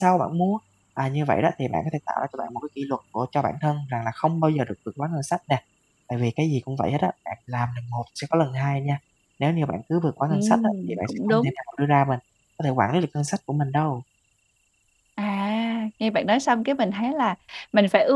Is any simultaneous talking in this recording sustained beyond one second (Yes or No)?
Yes